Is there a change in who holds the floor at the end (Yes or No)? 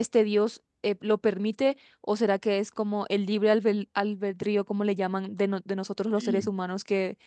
No